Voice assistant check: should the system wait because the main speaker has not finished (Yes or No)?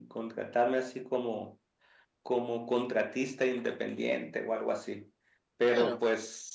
Yes